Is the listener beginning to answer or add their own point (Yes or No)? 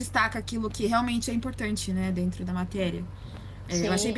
No